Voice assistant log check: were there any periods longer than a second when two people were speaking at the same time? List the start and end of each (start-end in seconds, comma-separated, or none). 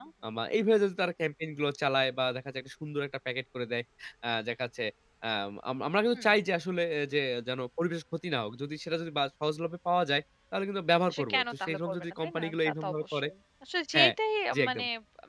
11.1-13.3